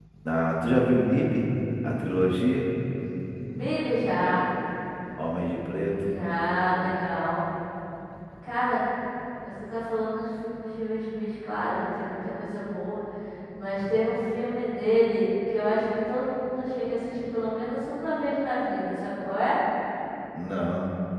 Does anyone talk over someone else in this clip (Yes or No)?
No